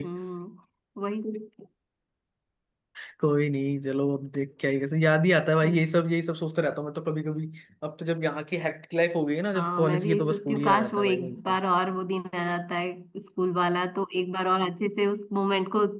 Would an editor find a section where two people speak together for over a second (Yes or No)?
Yes